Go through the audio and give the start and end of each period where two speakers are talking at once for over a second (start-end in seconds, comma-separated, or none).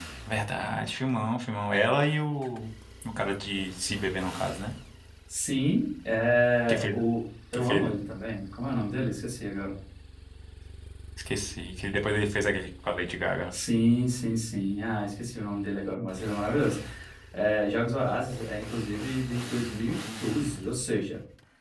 none